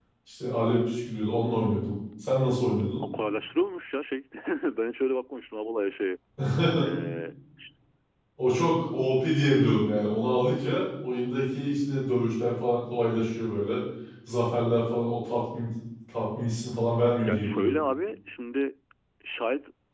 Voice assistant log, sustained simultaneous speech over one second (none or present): none